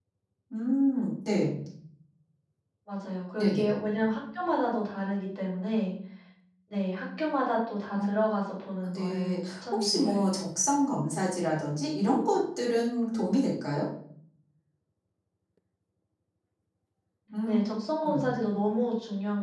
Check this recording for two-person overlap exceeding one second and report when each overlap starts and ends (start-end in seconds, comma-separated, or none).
8.8-10.2